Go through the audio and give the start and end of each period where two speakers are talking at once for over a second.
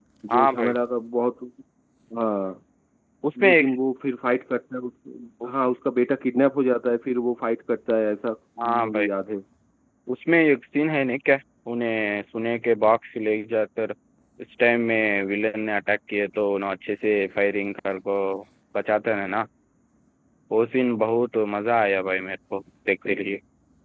none

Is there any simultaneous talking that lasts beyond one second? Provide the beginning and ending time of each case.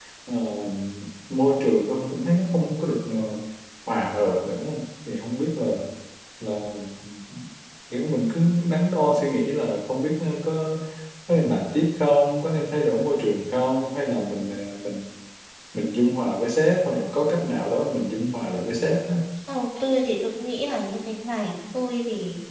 none

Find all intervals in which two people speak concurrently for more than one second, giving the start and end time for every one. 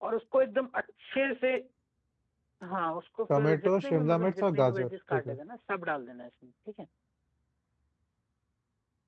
3.4-5.3

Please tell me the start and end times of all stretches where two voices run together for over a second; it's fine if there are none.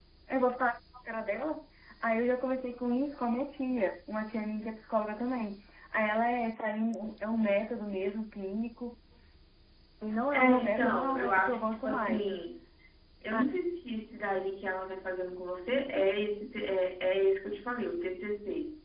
10.3-12.4

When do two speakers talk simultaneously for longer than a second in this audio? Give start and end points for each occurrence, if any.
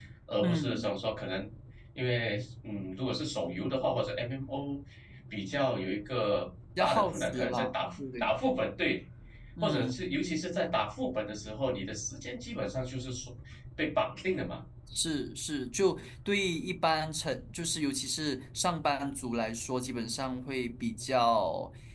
6.8-8.3

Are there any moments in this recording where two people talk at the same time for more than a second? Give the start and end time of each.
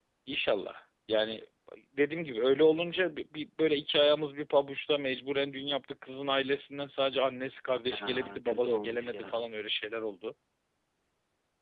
7.9-9.4

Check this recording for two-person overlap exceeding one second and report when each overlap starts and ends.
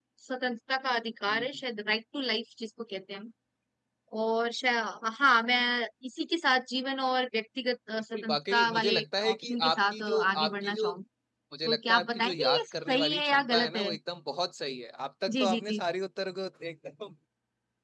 8.1-10.9, 11.6-13.9

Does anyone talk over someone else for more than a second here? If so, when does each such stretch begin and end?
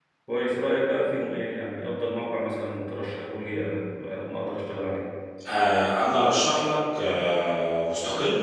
none

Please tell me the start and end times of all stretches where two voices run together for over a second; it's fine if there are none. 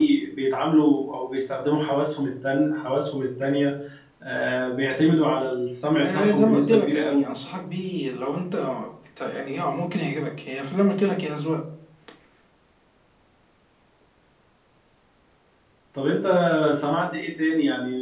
6.0-7.3

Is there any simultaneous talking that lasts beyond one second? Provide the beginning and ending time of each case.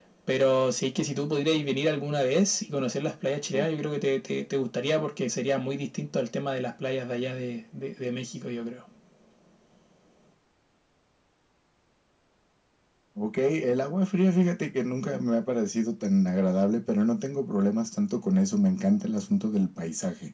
none

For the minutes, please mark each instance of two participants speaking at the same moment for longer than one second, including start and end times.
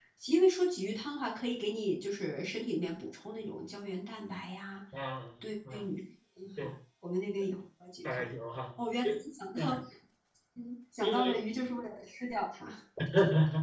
none

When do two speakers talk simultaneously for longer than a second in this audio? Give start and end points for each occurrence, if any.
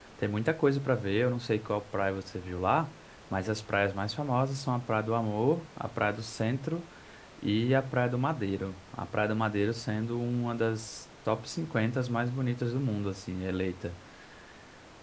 none

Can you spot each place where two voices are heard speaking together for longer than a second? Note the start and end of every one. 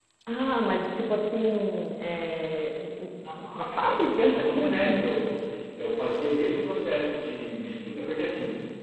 3.5-5.0

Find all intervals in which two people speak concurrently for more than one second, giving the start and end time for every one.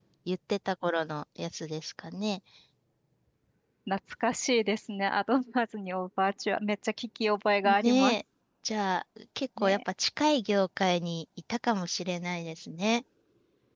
none

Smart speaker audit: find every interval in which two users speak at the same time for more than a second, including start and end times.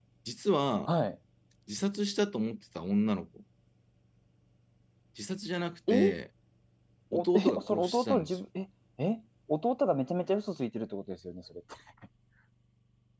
7.1-8.4

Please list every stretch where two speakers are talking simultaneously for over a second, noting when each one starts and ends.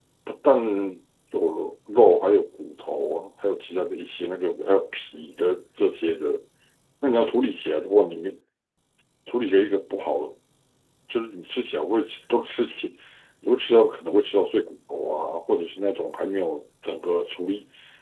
none

